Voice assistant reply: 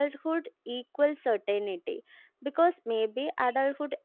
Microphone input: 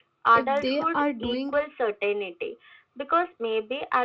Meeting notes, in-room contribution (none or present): present